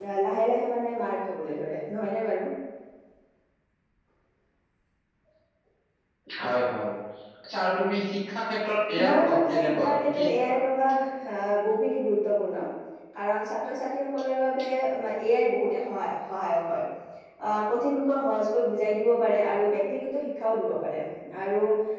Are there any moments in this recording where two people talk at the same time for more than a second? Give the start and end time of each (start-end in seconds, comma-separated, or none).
9.0-10.6